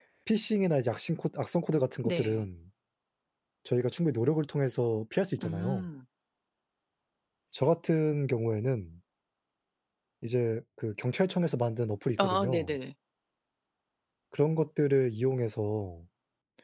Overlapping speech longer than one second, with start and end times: none

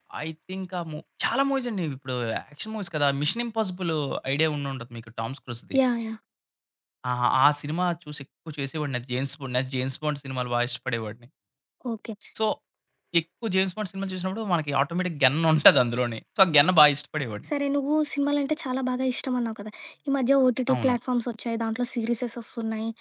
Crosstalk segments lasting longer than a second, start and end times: none

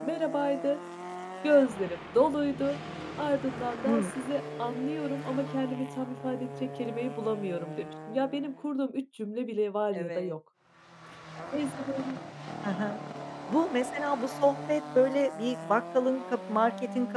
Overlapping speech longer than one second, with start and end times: none

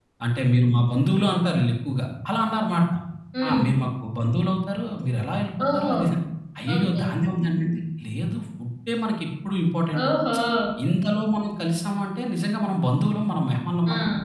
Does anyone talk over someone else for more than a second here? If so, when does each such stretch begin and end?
none

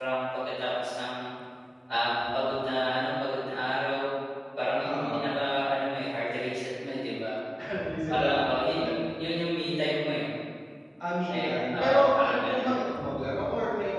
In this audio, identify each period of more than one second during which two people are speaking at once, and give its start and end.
11.4-12.7

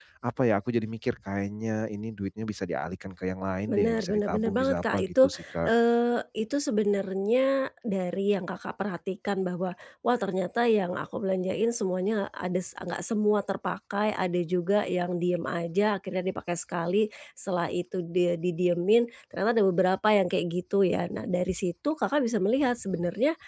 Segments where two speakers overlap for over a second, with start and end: 3.7-5.7

